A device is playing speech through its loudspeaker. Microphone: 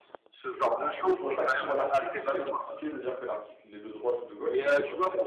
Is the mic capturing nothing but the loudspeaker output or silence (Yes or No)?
No